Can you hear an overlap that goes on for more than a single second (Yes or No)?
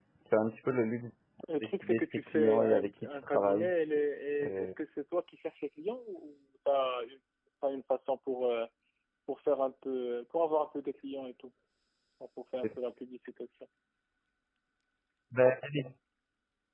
Yes